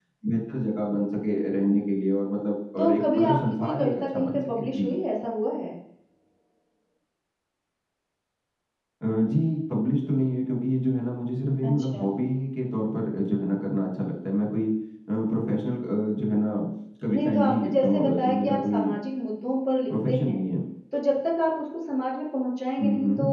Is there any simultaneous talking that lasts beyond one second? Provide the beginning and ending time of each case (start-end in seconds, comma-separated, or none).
2.8-4.9, 17.1-18.9